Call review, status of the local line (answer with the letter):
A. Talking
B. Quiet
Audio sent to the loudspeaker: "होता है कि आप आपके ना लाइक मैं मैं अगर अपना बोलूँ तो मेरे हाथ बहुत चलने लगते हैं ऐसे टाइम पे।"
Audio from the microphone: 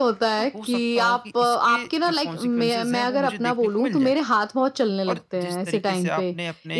A